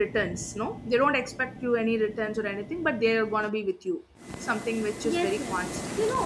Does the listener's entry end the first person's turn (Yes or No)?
Yes